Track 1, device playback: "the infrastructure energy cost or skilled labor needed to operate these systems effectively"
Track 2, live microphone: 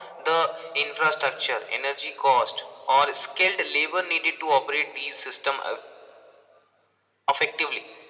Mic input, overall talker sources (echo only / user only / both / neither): echo only